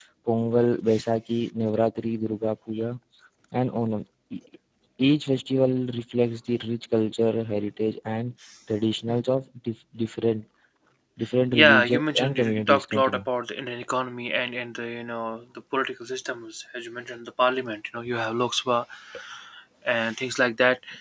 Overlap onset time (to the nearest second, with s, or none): 12 s